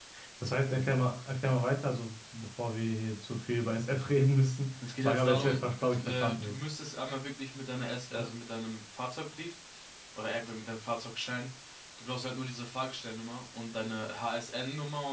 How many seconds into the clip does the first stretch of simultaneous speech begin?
4.8 s

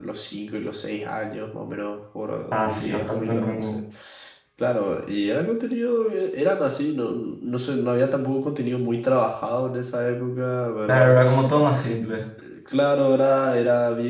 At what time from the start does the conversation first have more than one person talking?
2.5 s

